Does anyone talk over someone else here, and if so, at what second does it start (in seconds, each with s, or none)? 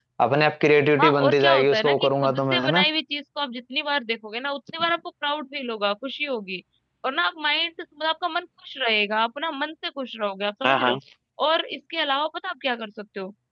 1.0 s